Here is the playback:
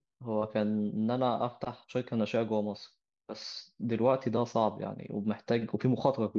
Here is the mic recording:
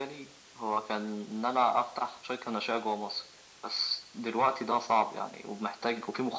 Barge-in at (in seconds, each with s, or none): none